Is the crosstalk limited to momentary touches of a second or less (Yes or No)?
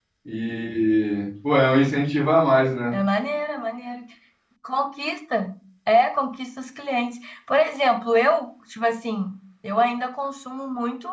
Yes